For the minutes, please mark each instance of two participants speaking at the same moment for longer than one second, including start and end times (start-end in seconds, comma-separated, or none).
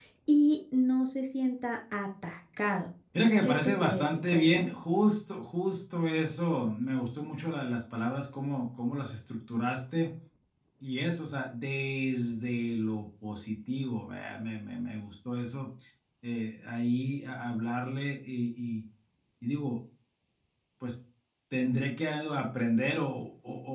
3.4-4.7